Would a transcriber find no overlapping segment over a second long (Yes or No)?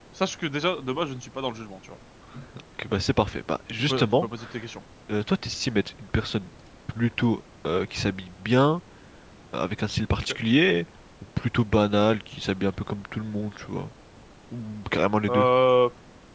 Yes